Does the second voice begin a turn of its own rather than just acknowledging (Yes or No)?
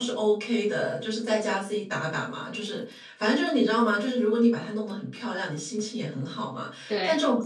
No